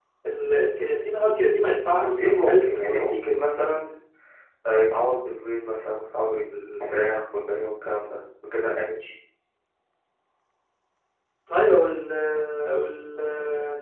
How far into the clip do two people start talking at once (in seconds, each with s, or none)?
1.8 s